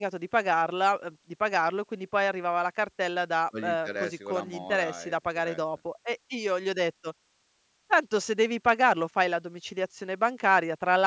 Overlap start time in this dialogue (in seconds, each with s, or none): 3.5 s